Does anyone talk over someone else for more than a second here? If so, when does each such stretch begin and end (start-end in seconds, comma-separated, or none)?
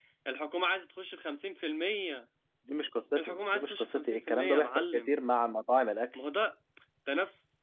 3.2-5.1